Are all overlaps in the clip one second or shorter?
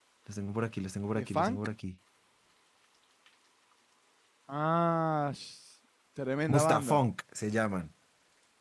Yes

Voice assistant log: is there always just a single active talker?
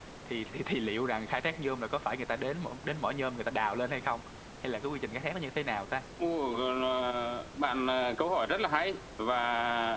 Yes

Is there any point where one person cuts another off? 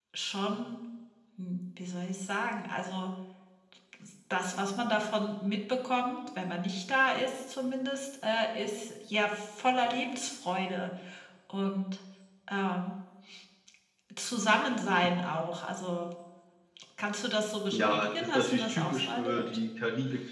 Yes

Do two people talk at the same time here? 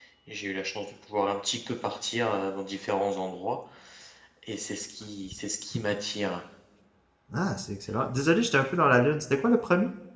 No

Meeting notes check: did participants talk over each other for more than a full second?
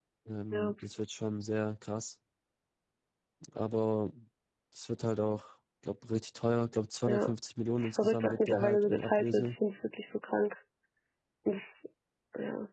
Yes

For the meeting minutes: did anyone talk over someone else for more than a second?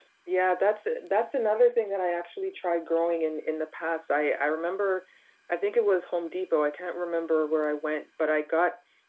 No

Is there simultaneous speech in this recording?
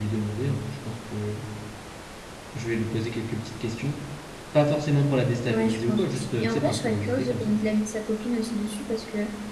Yes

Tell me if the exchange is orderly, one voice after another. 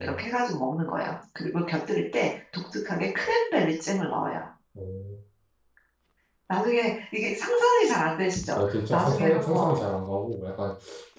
No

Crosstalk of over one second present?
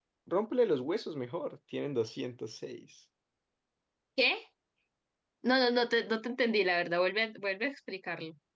No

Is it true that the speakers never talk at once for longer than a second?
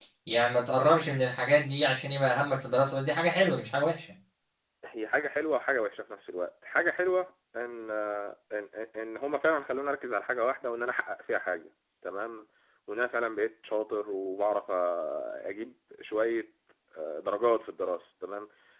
Yes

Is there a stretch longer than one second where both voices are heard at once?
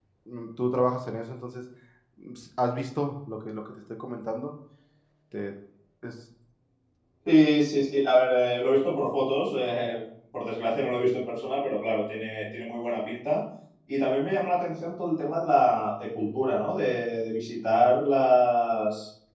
No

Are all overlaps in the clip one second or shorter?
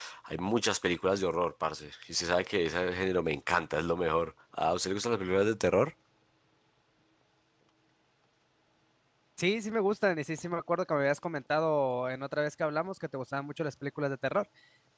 Yes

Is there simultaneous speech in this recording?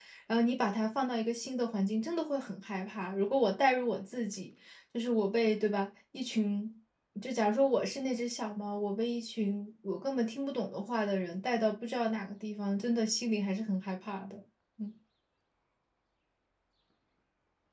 No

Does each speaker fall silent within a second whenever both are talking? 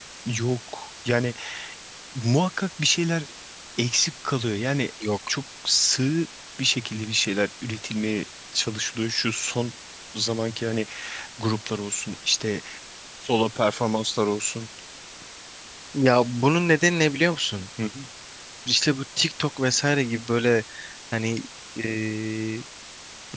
Yes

